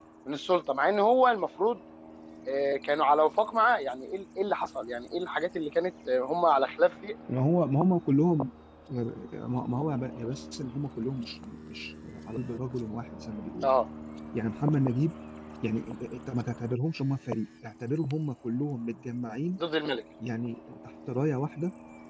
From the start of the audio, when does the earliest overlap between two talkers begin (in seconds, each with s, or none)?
none